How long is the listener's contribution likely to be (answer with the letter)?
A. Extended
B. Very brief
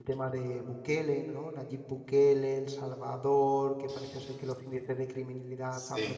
B